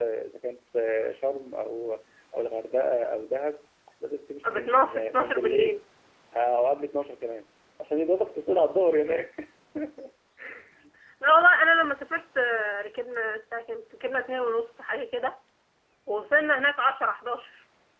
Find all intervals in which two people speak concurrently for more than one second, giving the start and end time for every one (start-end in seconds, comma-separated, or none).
4.4-5.8